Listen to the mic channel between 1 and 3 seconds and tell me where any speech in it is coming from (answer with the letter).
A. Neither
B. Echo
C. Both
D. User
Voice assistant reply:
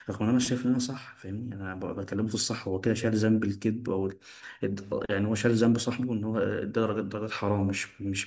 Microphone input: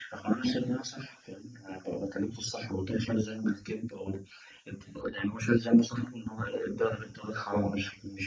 B